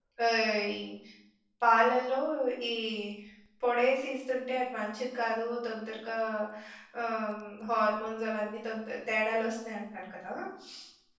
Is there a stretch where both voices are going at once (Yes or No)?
No